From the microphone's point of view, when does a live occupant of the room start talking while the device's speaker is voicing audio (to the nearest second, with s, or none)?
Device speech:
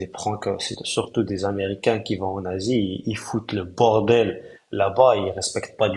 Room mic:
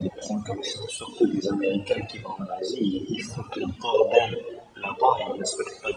none